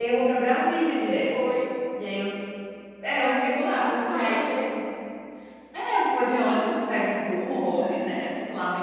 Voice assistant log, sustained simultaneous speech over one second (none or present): present